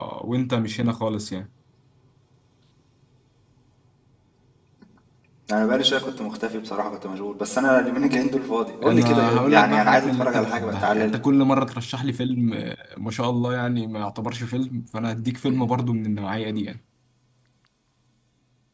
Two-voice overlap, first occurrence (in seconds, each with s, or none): 8.8 s